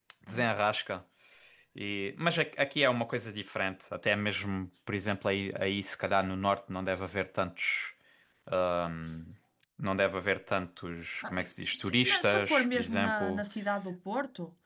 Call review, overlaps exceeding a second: present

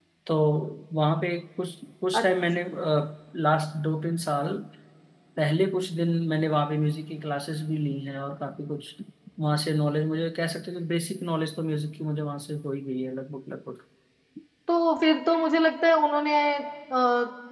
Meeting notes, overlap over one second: none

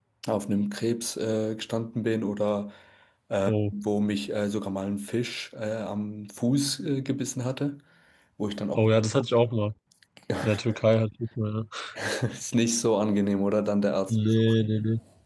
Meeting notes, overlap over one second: none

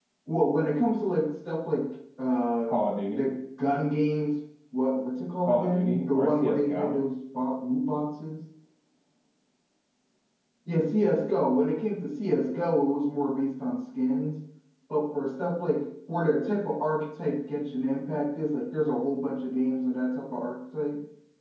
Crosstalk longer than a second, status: present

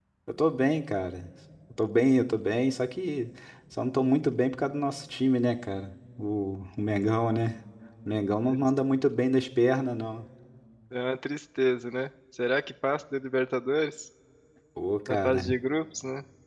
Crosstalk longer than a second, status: none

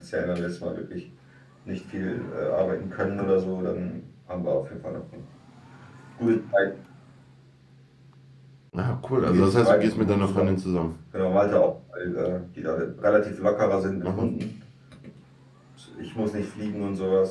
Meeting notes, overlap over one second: present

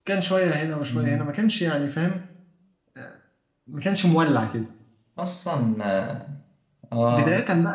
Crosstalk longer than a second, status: none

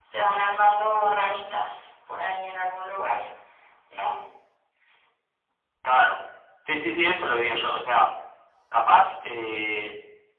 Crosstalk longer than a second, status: none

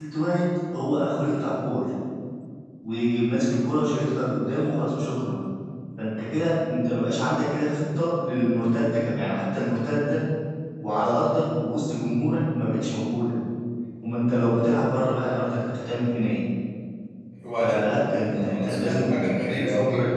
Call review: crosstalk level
present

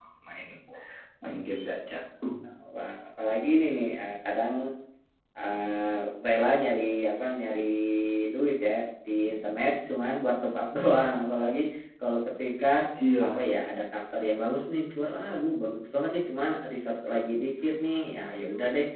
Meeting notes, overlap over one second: none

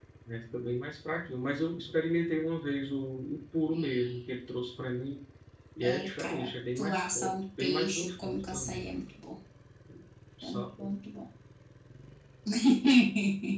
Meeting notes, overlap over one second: present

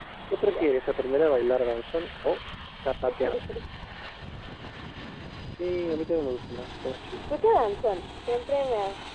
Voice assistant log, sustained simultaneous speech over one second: none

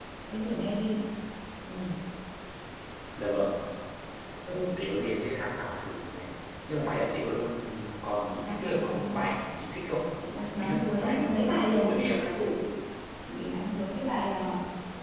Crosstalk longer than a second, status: present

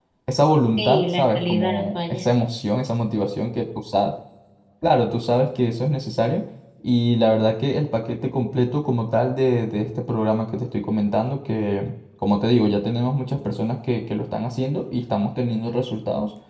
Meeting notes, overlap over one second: present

